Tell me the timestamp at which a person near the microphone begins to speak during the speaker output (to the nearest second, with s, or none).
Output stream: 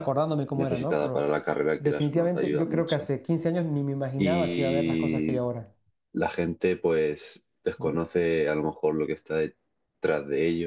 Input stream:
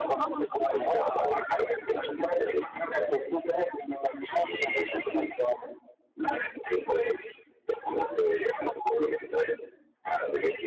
none